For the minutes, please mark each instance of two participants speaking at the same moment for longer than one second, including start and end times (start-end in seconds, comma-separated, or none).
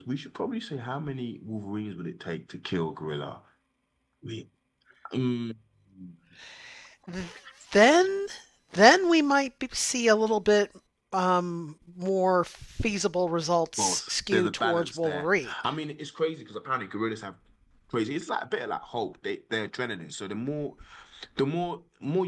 13.8-15.5